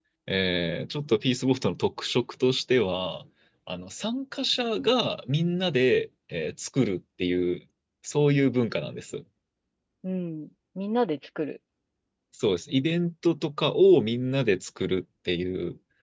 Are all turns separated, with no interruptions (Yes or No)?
Yes